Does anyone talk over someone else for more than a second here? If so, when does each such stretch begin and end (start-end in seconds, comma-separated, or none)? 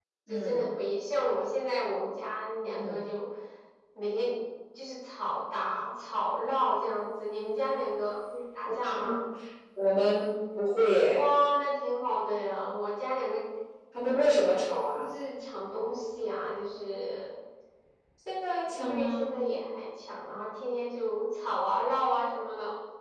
none